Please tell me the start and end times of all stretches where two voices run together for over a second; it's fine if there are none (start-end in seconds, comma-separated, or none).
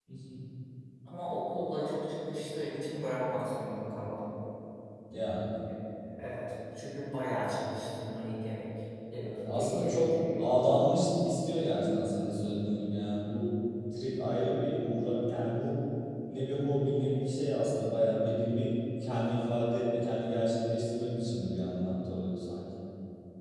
9.2-10.5